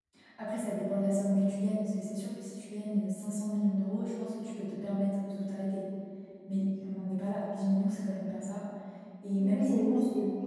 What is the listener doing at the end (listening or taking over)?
taking over